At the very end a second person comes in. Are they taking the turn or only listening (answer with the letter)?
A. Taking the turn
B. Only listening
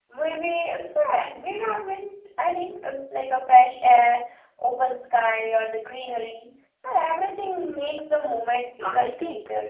A